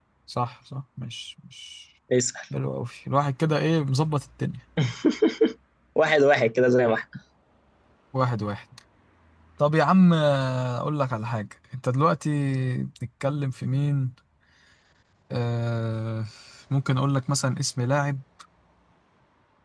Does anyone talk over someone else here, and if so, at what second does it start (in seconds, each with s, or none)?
none